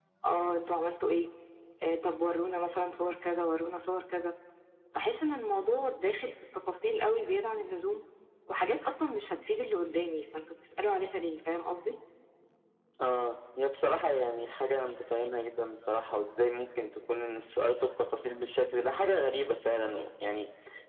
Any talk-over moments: No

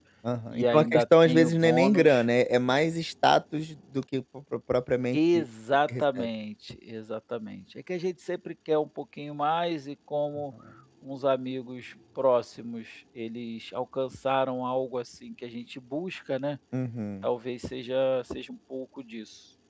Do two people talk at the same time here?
Yes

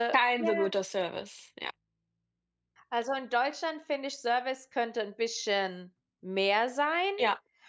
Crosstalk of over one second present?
No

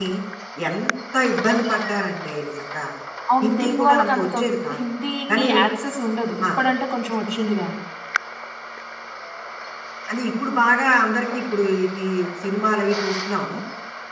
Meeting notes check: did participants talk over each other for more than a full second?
Yes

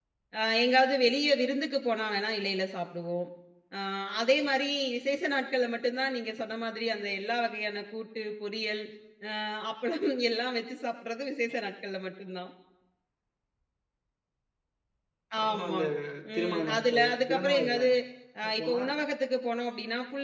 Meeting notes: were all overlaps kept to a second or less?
No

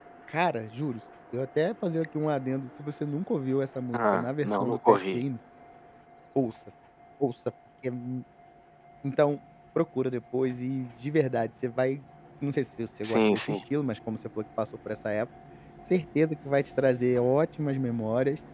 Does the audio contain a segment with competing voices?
Yes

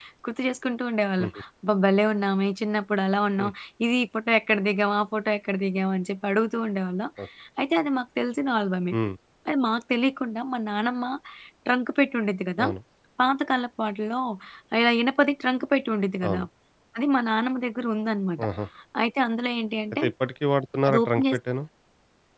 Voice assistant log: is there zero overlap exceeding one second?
Yes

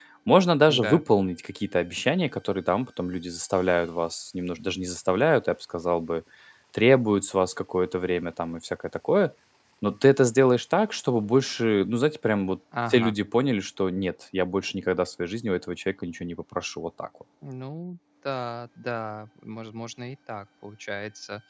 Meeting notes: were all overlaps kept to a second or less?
Yes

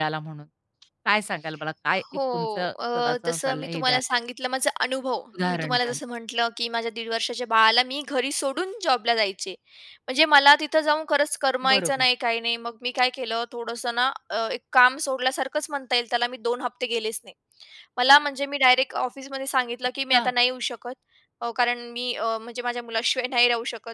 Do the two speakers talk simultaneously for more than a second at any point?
Yes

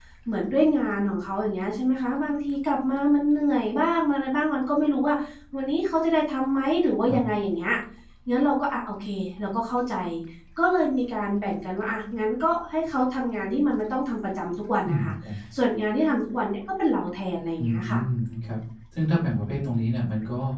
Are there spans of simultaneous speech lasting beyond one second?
No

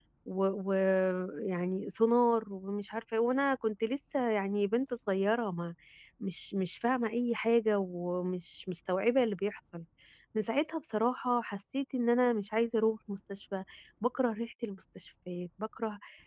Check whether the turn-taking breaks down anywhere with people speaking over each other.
No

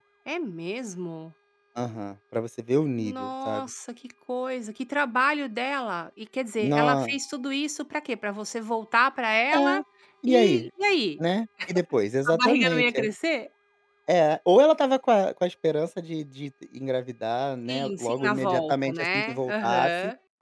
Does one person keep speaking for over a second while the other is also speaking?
Yes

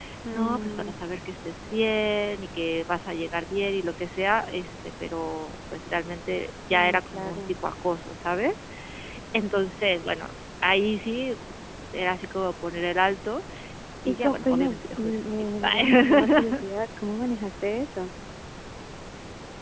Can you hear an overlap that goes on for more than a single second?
Yes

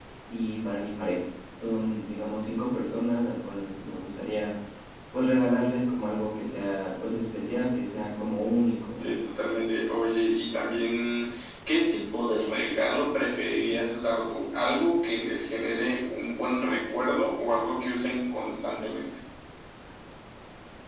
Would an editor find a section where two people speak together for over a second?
No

